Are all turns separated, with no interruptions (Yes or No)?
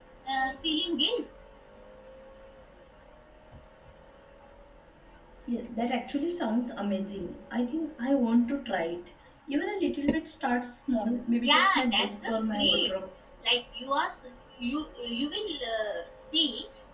No